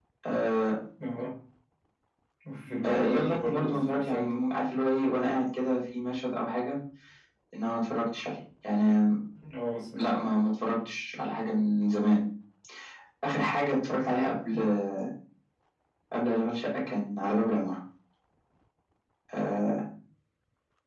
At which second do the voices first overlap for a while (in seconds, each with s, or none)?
2.8 s